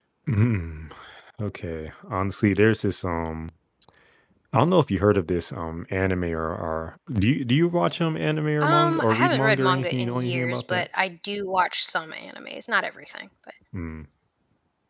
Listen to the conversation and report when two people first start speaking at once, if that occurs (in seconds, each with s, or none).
8.6 s